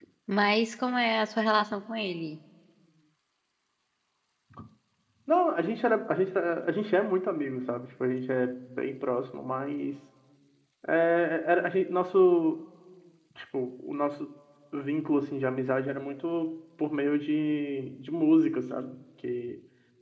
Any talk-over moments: No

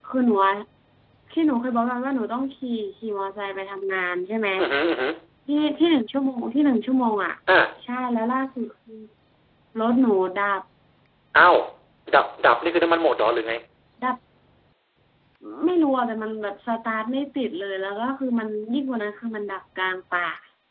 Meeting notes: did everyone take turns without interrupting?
Yes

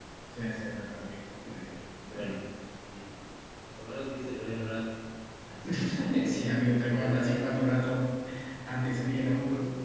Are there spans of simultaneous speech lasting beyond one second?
Yes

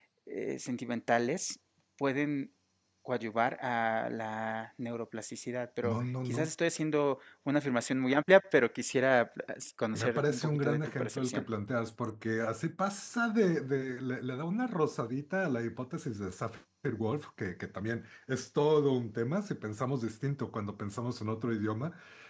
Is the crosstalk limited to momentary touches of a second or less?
No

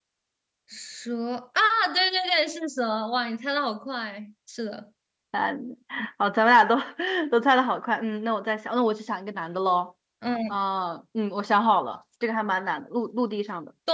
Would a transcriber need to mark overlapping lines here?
No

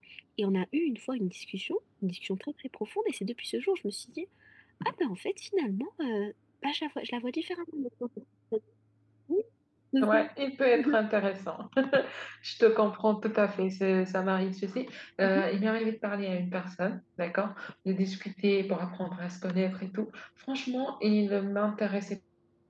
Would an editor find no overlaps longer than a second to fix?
Yes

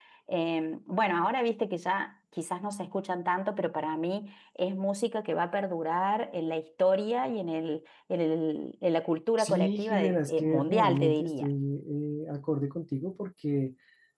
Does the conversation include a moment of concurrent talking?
Yes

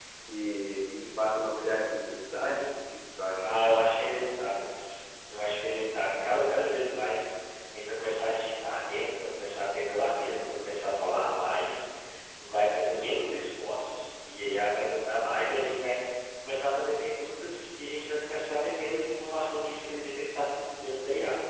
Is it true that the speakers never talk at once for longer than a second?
Yes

